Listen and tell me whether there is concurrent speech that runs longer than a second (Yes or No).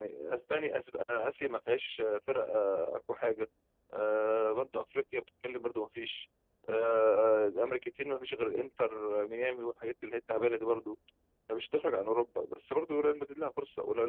No